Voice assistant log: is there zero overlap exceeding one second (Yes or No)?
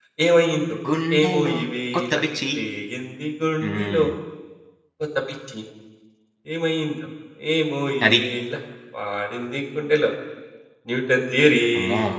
Yes